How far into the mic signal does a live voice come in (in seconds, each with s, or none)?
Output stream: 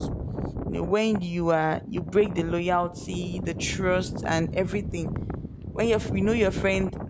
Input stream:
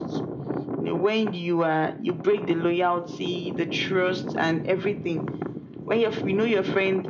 none